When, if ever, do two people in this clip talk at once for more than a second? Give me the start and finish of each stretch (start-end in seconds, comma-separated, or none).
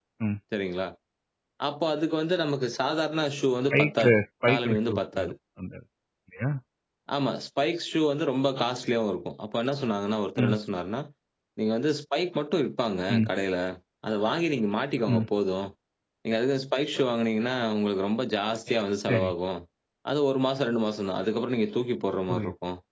3.7-5.3